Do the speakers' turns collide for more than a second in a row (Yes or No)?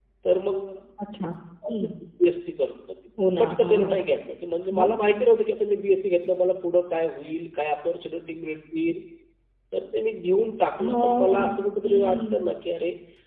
Yes